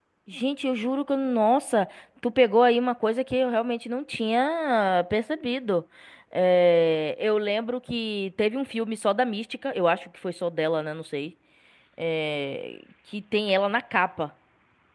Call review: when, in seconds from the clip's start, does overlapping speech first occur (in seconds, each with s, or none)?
none